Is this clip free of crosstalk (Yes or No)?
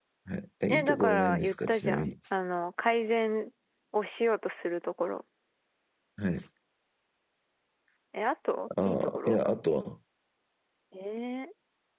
No